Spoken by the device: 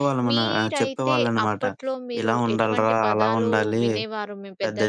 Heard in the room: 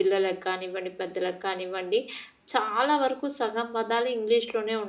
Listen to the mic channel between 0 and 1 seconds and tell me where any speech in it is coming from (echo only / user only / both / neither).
user only